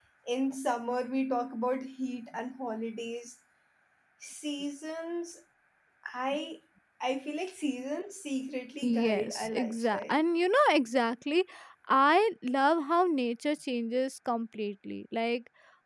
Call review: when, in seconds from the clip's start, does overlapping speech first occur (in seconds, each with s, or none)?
8.8 s